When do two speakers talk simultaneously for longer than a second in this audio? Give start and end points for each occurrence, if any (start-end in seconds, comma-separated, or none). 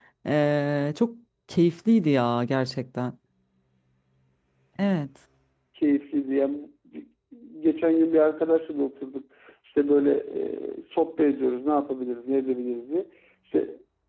none